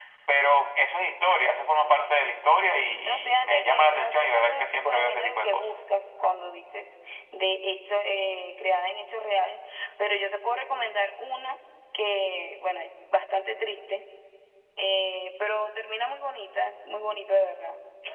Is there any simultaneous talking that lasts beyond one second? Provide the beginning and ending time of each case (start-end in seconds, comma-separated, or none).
3.1-5.8